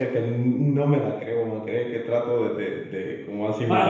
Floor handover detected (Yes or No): Yes